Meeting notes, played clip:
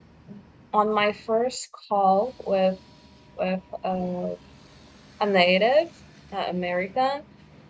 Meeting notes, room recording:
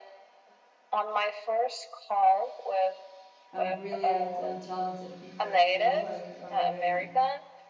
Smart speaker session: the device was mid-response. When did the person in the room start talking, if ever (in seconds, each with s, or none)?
3.5 s